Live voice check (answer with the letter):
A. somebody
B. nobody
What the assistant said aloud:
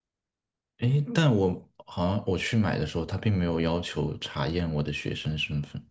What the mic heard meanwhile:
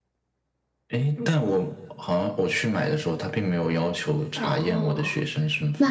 A